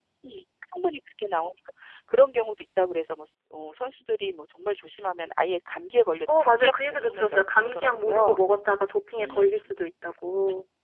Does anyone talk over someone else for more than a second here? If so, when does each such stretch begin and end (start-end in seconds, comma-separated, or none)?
6.3-8.4